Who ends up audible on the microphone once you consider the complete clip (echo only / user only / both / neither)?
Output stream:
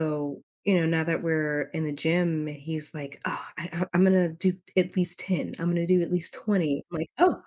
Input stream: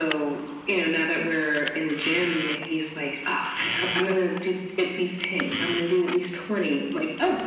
echo only